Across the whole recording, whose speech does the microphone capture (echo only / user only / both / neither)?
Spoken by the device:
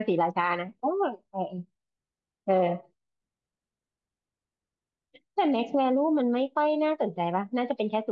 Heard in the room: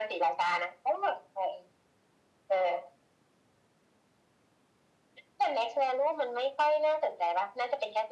echo only